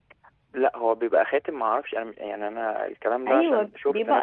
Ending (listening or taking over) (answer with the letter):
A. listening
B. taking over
B